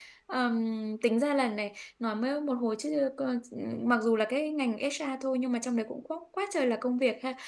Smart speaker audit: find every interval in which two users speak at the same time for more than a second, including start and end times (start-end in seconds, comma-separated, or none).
none